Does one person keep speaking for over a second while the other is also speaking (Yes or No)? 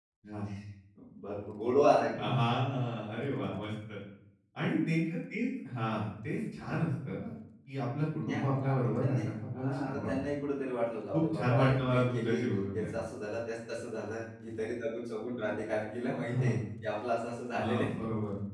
Yes